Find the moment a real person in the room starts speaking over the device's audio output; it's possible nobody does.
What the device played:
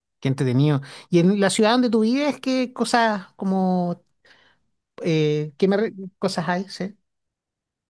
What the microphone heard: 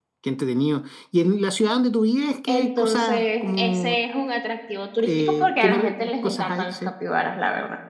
2.5 s

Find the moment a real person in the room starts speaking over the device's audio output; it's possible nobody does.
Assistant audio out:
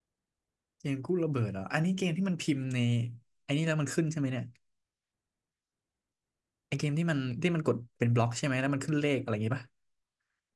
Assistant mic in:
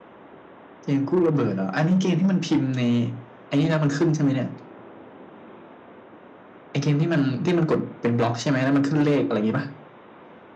none

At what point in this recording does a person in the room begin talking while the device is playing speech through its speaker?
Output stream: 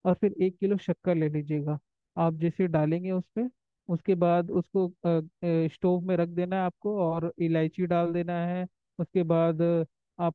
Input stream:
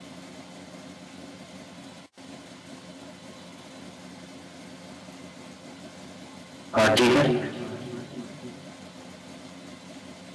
6.8 s

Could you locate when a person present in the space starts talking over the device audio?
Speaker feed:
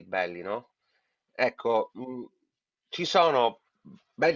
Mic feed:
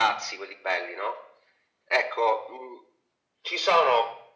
none

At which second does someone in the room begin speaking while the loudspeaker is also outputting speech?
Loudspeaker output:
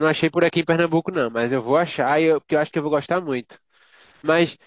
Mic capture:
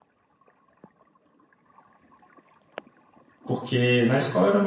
3.4 s

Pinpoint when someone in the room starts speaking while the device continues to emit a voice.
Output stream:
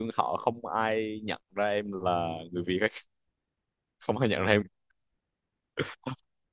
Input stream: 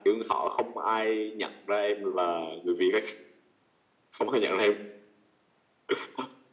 none

